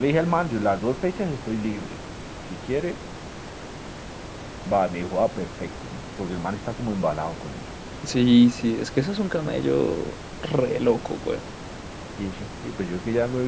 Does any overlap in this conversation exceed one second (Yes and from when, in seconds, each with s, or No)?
No